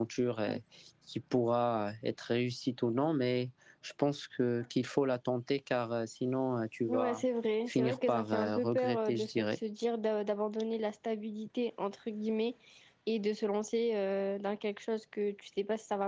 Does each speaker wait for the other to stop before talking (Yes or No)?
No